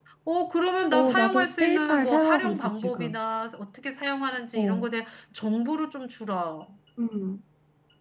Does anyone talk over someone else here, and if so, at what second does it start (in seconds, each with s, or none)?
0.9 s